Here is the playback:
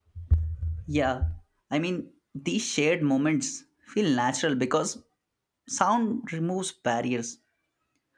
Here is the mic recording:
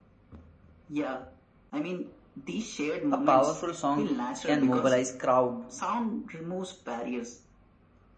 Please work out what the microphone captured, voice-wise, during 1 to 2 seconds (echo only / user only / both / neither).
echo only